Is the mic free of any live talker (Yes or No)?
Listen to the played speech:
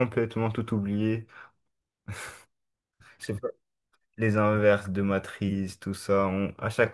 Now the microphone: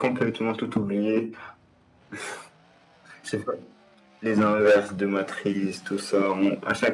Yes